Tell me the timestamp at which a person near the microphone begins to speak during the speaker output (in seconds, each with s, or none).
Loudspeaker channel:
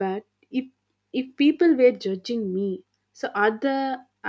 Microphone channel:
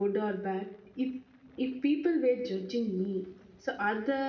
none